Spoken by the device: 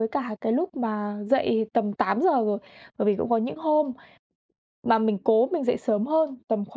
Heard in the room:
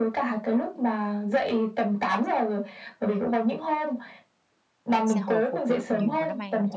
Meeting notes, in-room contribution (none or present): present